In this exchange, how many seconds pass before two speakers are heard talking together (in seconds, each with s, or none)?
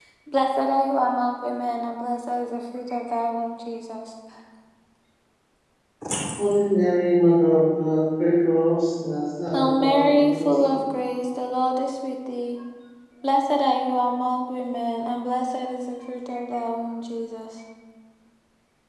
9.5 s